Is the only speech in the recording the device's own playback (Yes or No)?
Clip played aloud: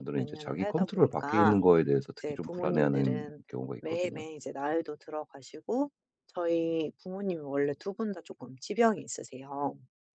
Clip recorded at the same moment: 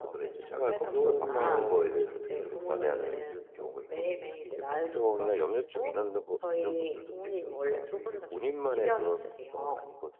No